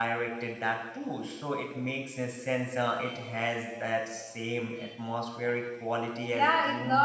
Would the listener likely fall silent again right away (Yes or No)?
No